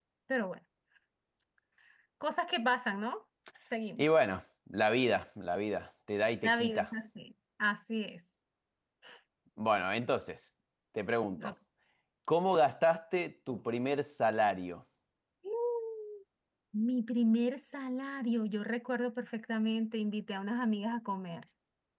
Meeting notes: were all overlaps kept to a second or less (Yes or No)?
Yes